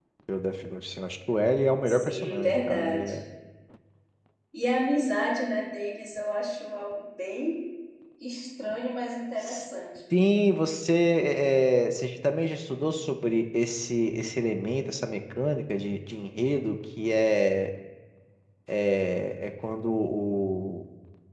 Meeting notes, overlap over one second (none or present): present